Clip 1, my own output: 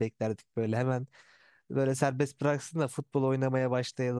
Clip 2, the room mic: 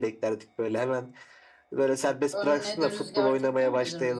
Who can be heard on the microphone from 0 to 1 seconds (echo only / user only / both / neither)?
echo only